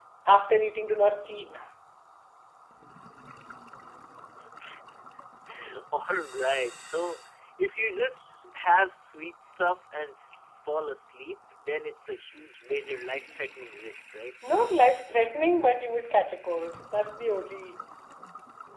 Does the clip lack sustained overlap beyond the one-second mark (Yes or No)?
Yes